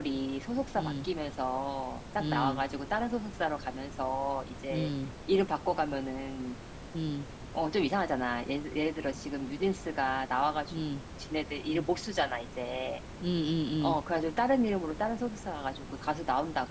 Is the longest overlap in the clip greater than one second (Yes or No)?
No